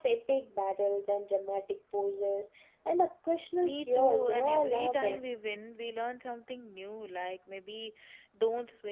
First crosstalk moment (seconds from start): 4 s

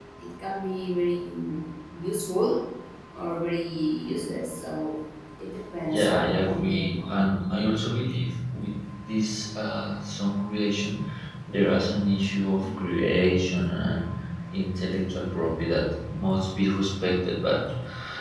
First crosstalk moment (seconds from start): 6 s

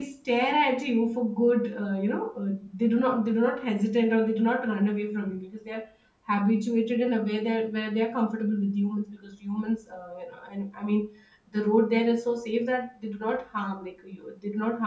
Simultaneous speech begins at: none

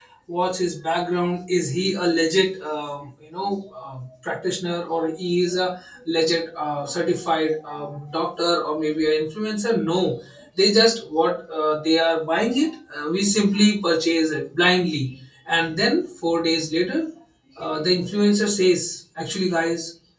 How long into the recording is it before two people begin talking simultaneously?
none

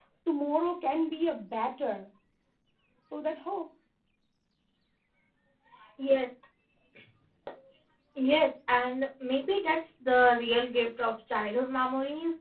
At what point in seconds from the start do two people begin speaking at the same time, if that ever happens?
none

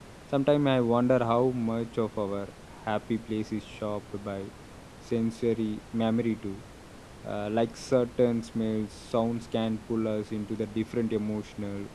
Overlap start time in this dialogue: none

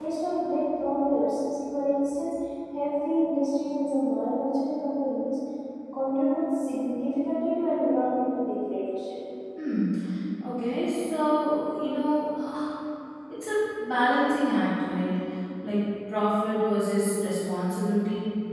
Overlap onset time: none

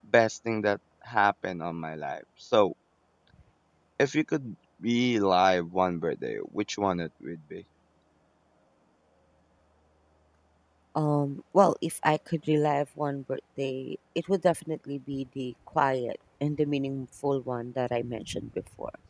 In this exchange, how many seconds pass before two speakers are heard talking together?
none

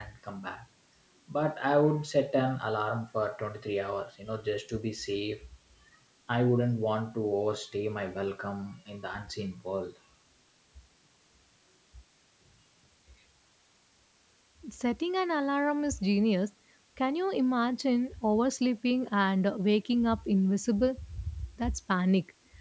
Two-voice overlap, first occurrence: none

